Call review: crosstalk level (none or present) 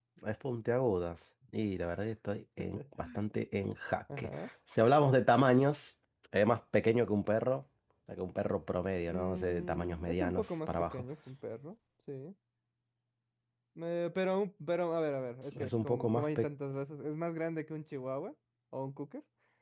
present